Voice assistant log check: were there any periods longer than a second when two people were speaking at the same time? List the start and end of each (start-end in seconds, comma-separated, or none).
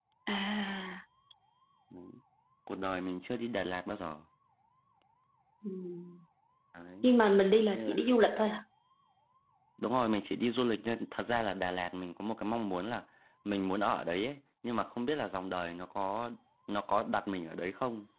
none